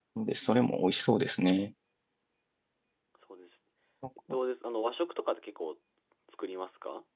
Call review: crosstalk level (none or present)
none